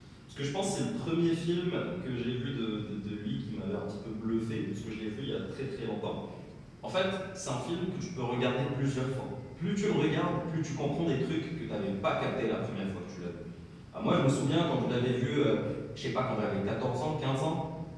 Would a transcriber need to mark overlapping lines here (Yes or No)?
No